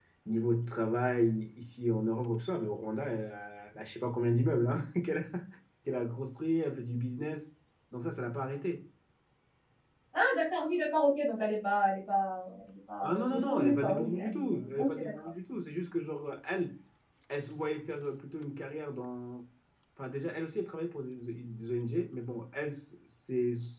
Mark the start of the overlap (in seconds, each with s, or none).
13.0 s